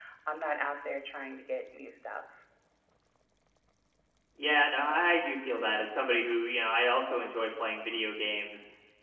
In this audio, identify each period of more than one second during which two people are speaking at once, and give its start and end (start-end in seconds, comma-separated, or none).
none